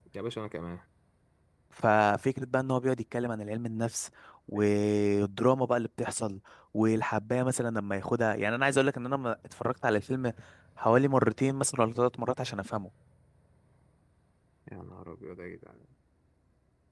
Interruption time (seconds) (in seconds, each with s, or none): none